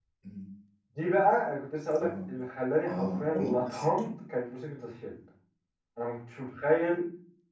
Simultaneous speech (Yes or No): Yes